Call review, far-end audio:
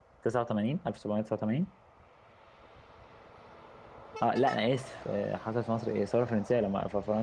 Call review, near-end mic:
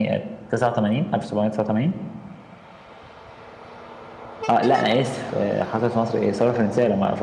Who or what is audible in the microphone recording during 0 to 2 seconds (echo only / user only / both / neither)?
echo only